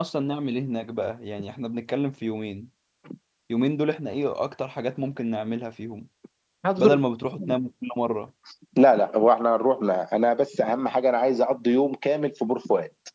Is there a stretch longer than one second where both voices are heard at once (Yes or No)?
No